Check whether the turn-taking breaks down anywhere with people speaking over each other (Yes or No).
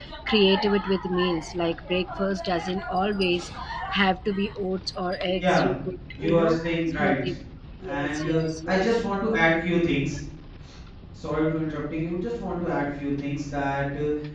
Yes